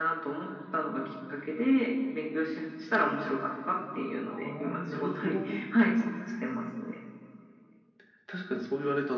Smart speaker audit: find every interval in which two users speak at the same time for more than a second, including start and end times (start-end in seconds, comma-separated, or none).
4.3-5.6